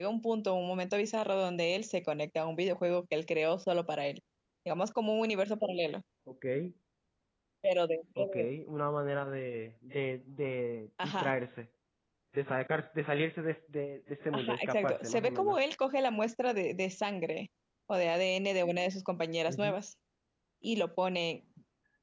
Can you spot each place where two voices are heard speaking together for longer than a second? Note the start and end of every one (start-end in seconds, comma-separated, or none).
14.3-15.6